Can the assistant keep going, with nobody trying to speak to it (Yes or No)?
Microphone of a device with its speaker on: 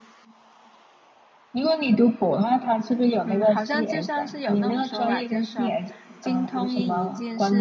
No